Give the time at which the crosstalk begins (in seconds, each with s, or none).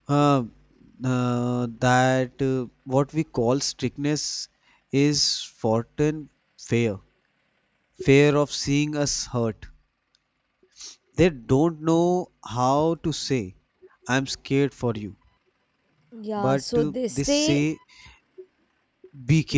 16.4 s